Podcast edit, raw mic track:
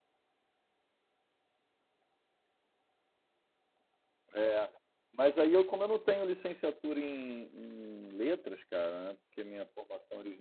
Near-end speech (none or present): present